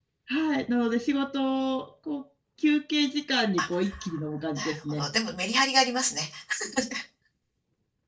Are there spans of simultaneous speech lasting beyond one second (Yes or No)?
No